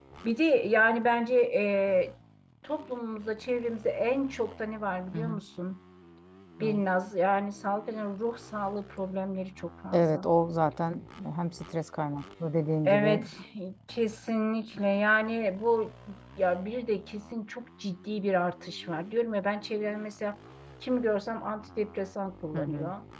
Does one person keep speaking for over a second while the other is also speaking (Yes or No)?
No